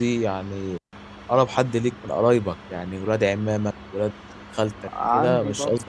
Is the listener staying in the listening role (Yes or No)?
No